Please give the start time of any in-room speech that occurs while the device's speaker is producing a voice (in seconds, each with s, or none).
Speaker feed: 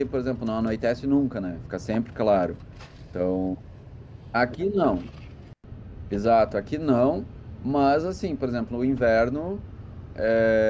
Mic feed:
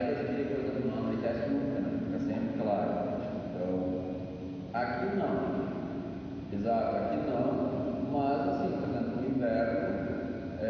none